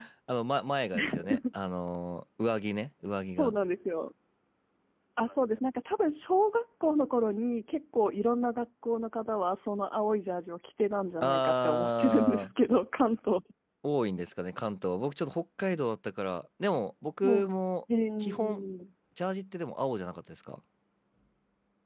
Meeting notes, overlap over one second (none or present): present